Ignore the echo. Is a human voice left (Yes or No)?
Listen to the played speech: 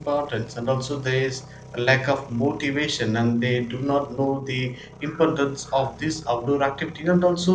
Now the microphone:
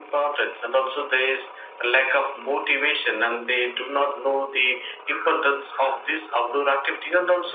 No